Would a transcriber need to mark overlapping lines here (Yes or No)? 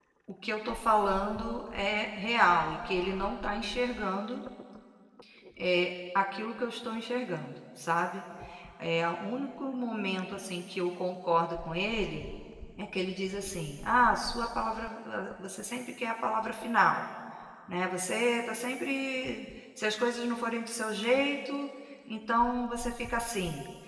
No